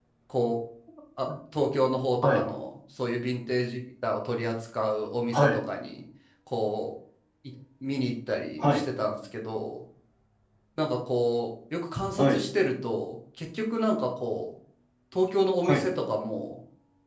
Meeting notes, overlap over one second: none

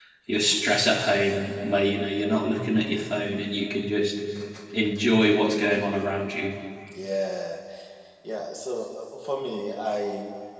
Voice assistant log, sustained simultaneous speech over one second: none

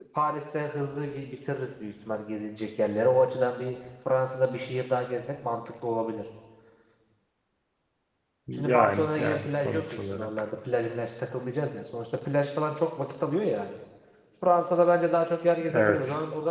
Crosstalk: present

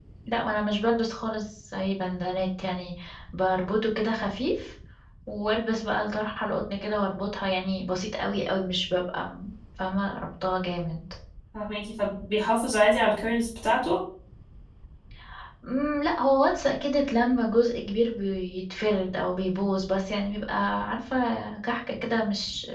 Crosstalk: none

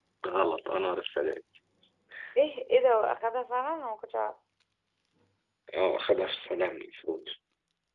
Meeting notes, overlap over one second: none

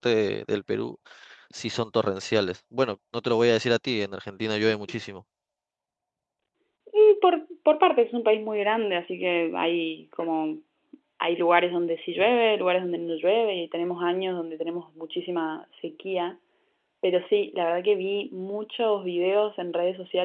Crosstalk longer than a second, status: none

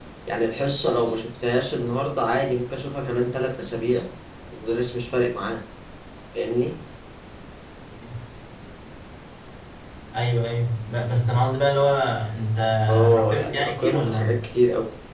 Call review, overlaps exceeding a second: present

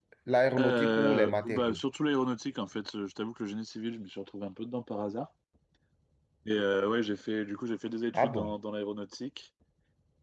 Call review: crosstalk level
present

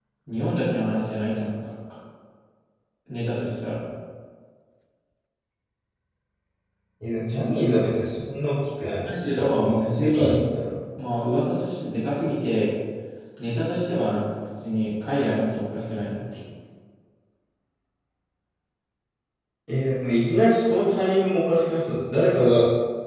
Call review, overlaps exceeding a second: present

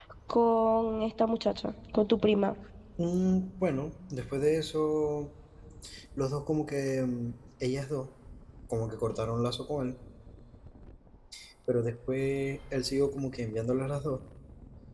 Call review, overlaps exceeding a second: none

